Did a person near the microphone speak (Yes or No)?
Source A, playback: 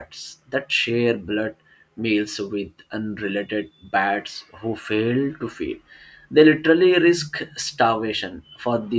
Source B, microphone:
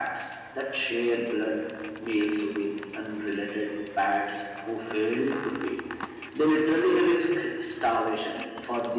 No